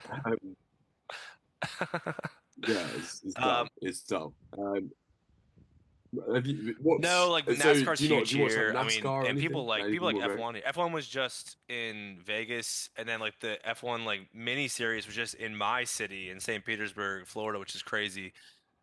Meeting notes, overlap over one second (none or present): present